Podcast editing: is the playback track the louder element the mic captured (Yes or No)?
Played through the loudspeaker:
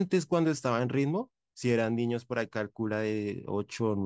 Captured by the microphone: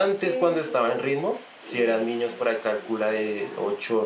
Yes